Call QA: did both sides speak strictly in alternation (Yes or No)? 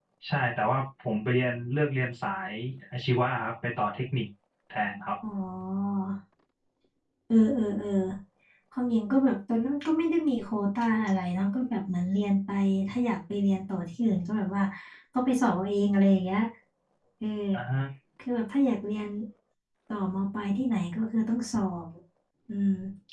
Yes